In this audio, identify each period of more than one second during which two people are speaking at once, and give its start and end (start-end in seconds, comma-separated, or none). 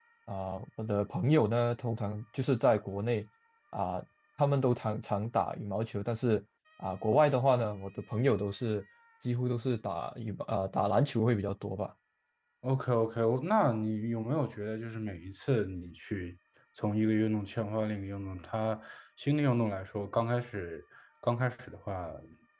none